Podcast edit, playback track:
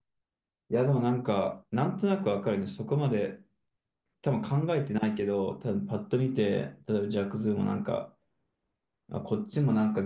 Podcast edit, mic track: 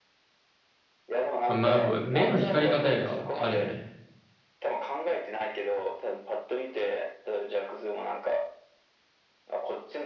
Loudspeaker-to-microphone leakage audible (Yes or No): Yes